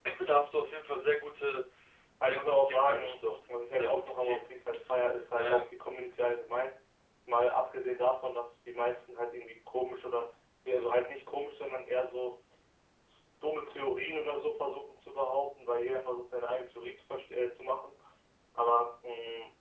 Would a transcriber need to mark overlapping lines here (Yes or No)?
Yes